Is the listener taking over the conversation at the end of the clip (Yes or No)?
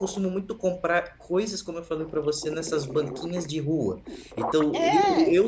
No